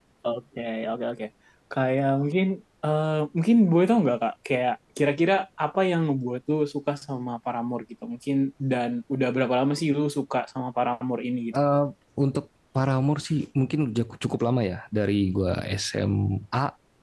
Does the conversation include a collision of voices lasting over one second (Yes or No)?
No